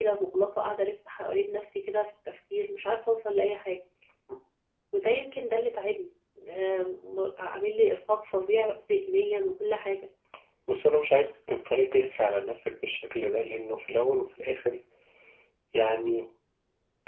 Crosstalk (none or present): none